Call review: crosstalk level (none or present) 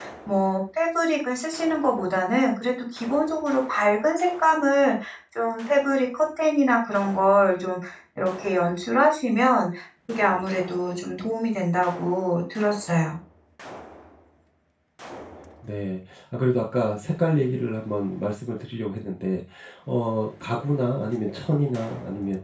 none